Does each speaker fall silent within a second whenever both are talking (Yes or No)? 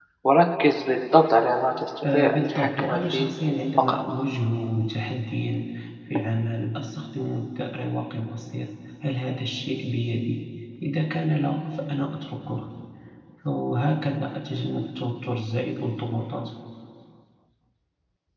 No